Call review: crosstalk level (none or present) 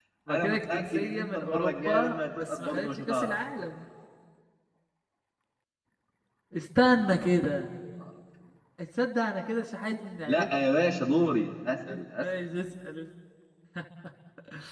present